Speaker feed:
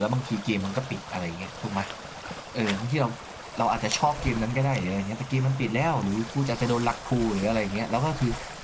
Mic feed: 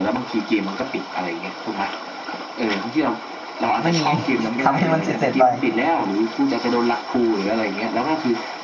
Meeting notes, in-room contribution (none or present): present